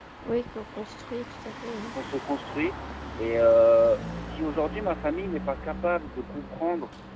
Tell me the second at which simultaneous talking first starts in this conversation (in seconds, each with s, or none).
none